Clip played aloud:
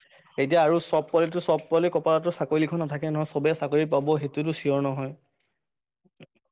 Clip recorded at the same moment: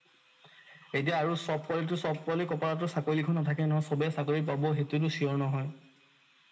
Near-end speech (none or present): none